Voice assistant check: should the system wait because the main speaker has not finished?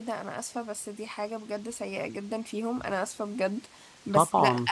Yes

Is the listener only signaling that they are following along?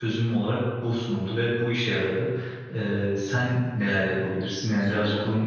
No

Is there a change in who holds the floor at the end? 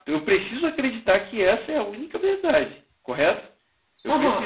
Yes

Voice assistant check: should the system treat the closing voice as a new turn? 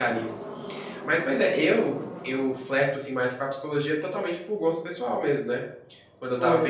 No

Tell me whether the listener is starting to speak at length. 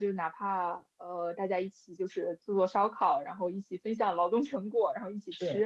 No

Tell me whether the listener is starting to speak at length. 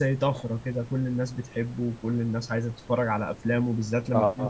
Yes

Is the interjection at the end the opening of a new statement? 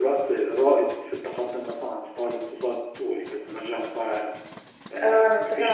Yes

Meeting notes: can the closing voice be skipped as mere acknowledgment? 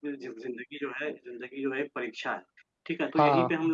Yes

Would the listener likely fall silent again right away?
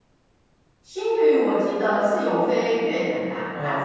Yes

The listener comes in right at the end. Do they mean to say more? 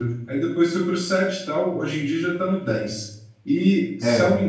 No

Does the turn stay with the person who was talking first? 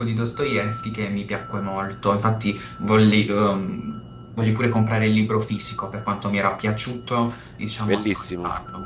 No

